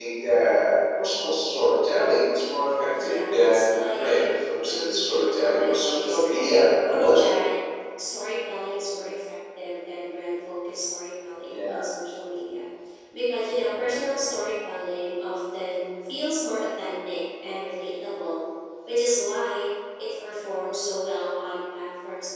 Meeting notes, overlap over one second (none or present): present